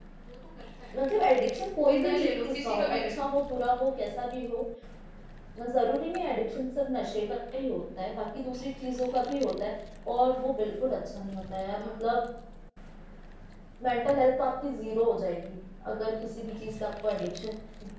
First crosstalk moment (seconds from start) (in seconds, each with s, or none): 1.8 s